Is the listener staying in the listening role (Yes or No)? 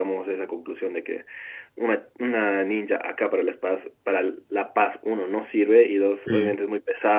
Yes